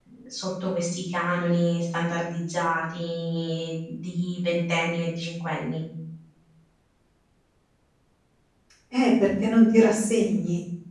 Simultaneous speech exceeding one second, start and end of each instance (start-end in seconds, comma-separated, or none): none